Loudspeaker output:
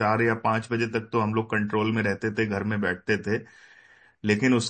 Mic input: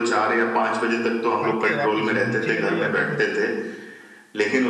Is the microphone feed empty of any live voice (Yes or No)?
No